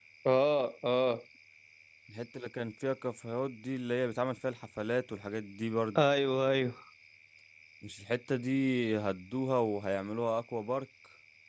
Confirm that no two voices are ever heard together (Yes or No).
Yes